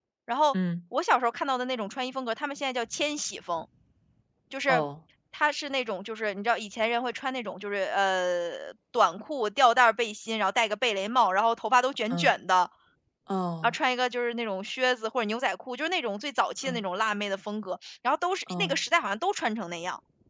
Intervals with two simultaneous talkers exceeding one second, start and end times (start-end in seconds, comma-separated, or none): none